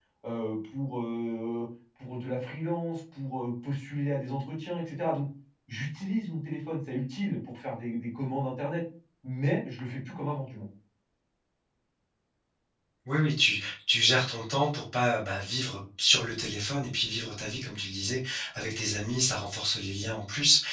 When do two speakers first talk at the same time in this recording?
none

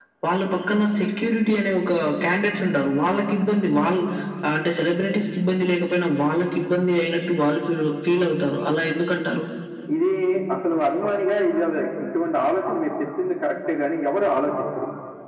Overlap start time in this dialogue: none

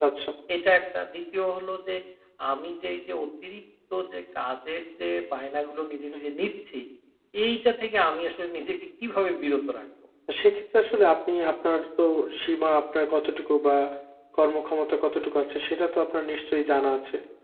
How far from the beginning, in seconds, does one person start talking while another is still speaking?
none

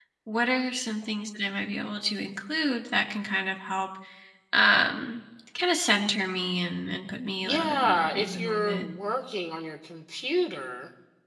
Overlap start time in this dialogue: 7.4 s

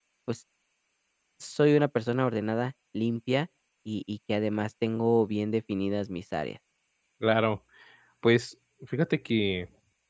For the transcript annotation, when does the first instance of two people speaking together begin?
none

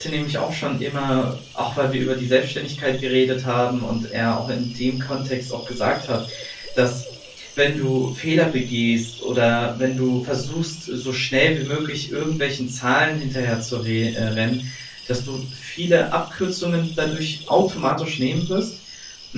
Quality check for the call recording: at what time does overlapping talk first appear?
none

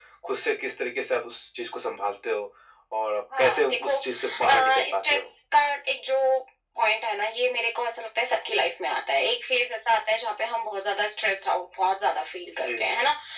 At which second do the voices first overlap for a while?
3.4 s

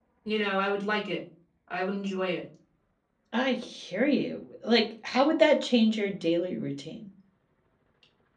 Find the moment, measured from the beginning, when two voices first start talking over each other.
none

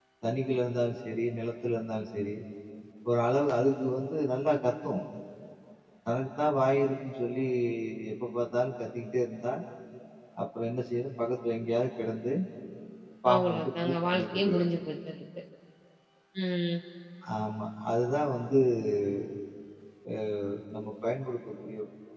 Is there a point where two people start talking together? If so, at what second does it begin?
13.3 s

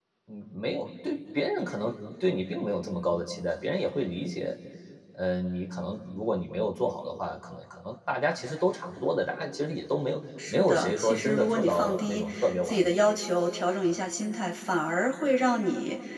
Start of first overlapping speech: 10.4 s

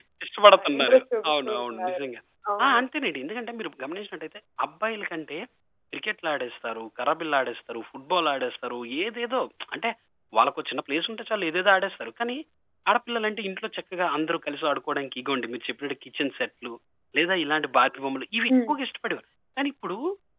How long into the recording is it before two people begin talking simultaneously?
0.5 s

